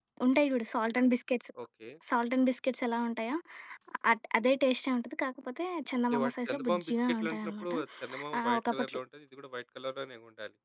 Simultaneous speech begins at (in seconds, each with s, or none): 6.1 s